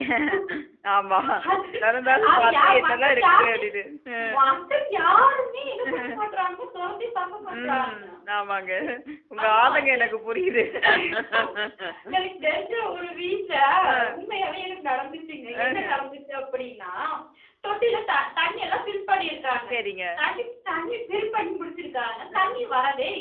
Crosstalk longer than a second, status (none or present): present